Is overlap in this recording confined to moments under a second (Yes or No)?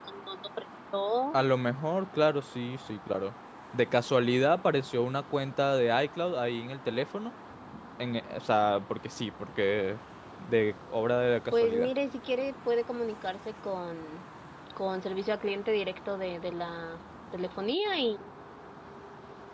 Yes